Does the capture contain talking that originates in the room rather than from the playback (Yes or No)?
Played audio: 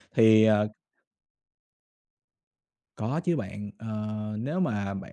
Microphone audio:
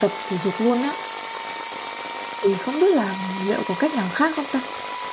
Yes